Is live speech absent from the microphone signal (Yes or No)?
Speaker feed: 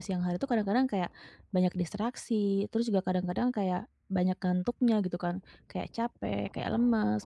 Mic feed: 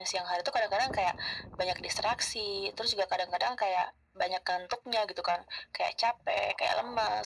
Yes